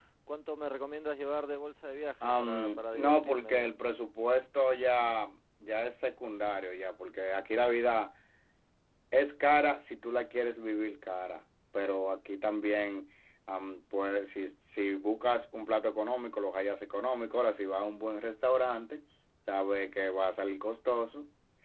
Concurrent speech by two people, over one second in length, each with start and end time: 2.4-3.7

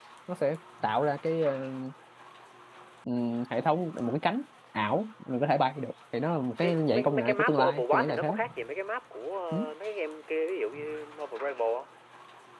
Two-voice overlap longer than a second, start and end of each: 6.6-8.3

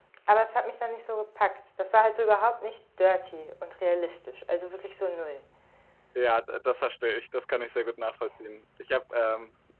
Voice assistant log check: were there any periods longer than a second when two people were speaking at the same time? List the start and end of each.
none

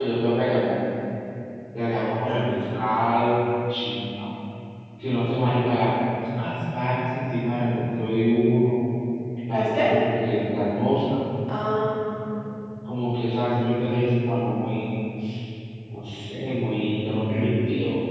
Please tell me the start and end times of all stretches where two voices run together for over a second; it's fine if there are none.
none

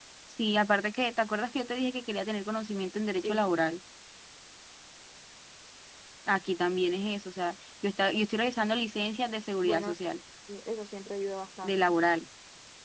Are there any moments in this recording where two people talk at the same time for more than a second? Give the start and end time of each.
none

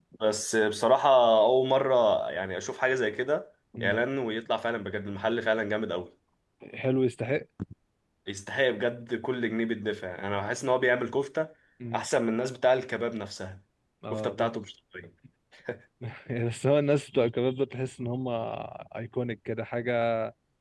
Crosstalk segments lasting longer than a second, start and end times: none

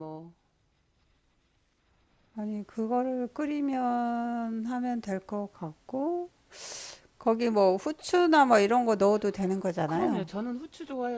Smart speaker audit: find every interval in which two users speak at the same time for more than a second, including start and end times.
none

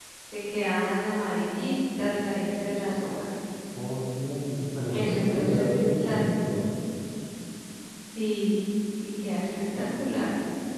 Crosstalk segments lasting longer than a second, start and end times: 4.9-6.2

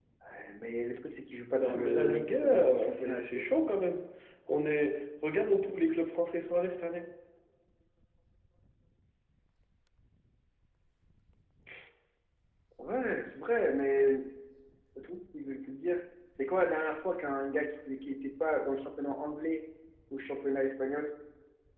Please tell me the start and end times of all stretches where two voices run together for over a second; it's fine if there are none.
1.6-3.5

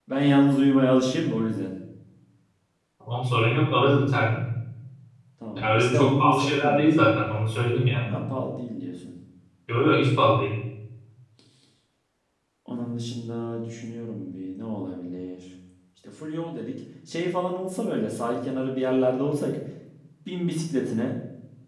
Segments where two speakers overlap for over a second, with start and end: 5.6-6.9

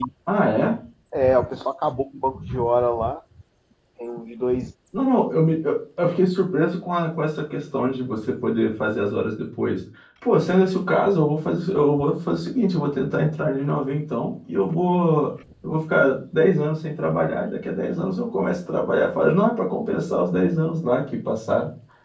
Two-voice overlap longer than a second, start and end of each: none

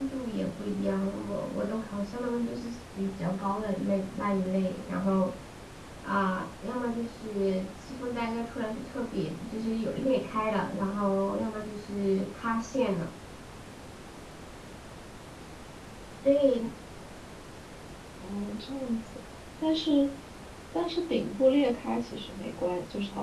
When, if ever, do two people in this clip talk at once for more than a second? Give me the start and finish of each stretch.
none

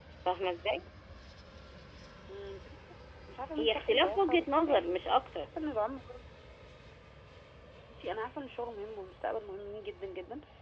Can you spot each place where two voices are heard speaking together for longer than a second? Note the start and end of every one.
3.6-5.0

